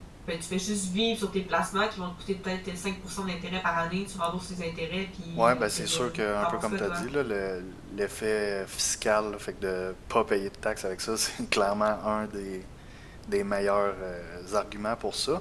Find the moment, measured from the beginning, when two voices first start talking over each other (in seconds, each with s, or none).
5.4 s